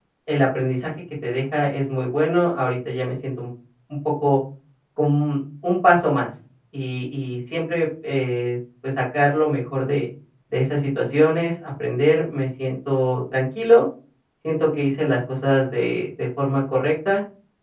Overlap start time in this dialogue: none

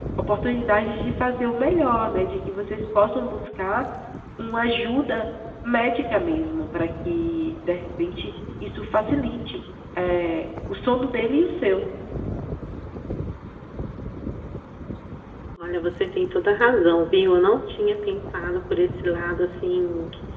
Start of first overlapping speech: none

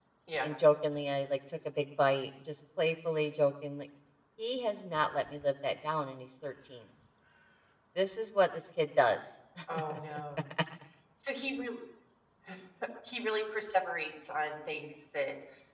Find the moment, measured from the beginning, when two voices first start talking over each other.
none

